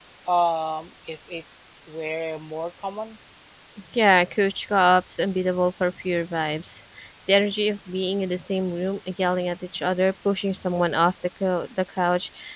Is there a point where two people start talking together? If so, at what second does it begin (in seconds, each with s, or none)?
none